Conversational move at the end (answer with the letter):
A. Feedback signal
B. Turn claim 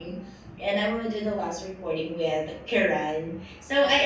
A